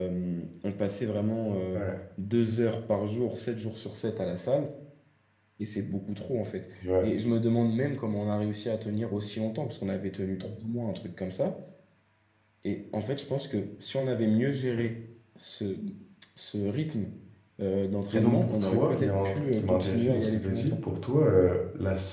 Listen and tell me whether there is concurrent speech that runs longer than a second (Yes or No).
Yes